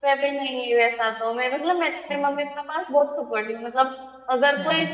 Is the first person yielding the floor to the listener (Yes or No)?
No